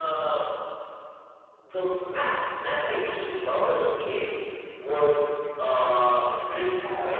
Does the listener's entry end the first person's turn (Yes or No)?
Yes